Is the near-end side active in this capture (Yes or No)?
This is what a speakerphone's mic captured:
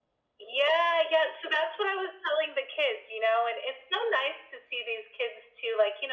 No